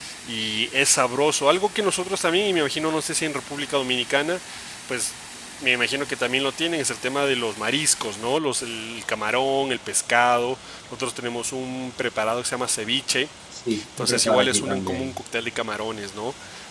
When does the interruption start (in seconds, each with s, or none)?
14.0 s